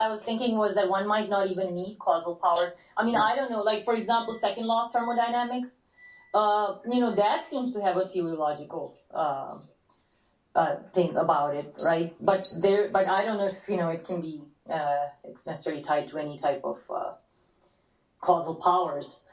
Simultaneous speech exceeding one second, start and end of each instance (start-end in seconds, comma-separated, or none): none